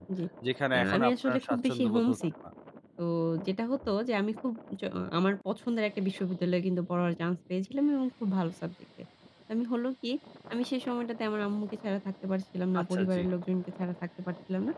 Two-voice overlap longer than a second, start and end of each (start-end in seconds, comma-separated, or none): 0.7-2.2